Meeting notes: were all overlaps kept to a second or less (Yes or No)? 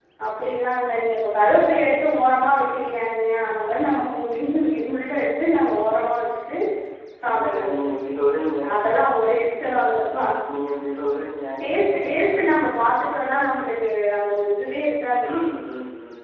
Yes